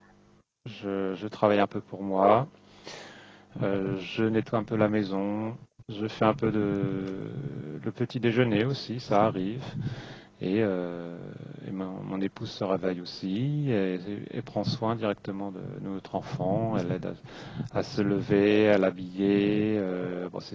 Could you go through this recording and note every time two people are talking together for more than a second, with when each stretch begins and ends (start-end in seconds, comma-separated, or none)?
none